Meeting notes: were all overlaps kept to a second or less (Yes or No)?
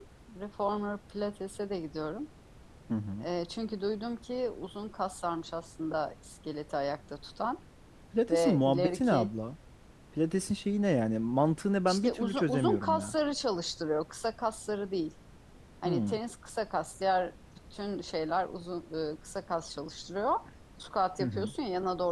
No